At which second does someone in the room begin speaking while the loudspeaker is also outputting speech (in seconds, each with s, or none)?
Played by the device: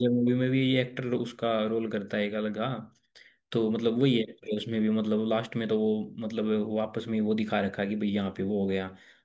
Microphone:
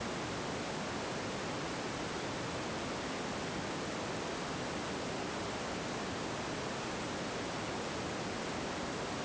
none